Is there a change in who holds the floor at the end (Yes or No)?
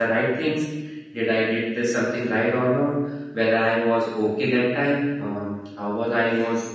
No